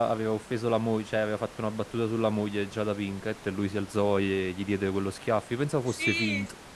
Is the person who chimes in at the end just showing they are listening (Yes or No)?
No